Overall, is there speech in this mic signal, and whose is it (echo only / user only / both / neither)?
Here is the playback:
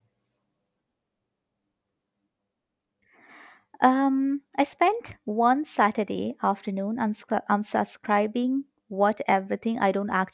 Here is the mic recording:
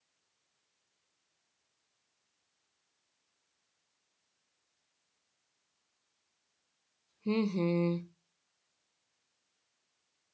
user only